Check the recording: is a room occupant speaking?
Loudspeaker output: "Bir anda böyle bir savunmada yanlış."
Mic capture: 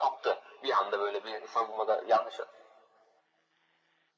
No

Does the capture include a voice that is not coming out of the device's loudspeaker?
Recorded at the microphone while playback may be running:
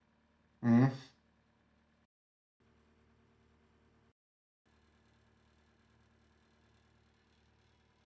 Yes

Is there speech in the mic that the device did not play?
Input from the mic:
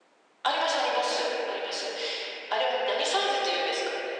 No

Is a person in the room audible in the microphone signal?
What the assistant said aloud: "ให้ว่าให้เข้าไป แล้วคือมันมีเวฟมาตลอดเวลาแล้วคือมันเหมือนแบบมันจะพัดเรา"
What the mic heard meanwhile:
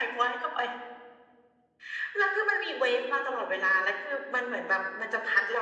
No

